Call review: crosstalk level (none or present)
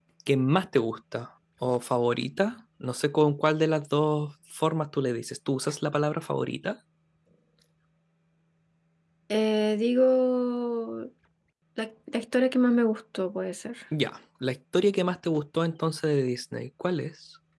none